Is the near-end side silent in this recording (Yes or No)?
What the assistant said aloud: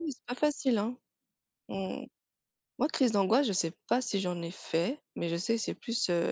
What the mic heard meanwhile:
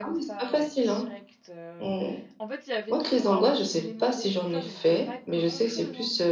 No